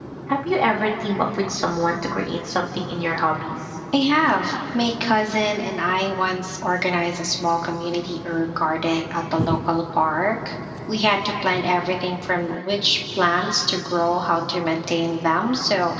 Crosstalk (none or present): none